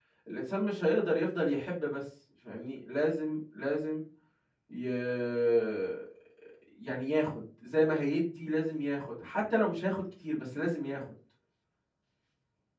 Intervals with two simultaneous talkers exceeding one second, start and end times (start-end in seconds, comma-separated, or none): none